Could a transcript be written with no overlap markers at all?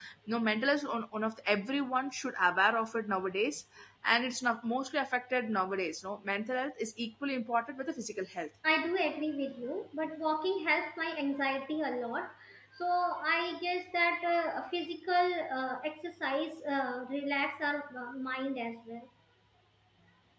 Yes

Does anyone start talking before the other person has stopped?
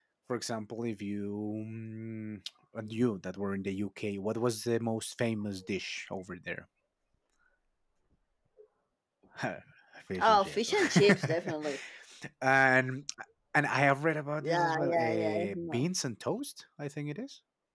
Yes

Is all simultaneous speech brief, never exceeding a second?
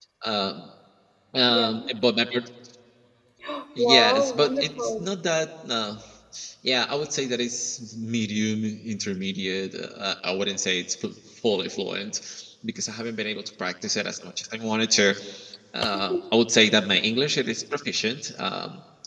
No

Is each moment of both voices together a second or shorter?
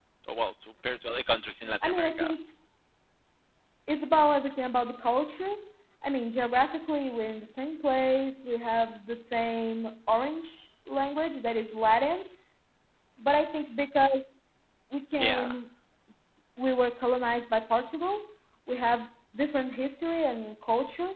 Yes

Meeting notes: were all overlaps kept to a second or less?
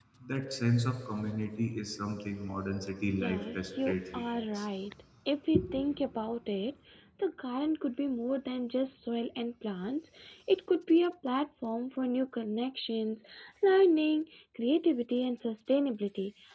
No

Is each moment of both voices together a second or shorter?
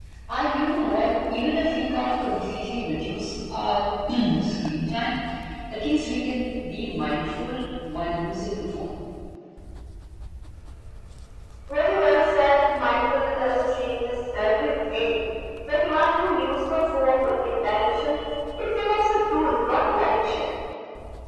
Yes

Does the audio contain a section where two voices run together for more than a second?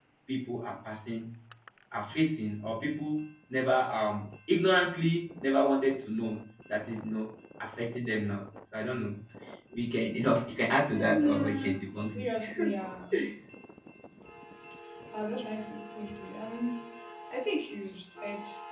Yes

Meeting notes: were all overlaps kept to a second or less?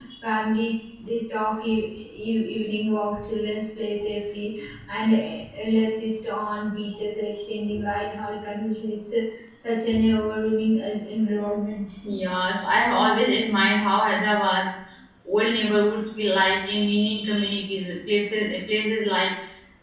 Yes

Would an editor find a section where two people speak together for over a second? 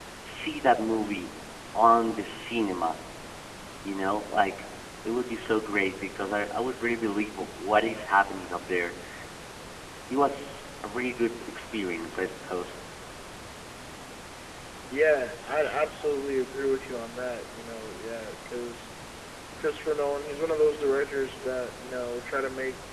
No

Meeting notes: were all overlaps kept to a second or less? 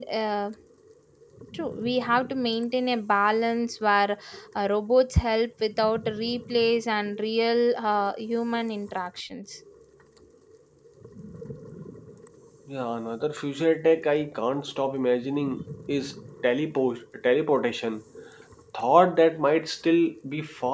Yes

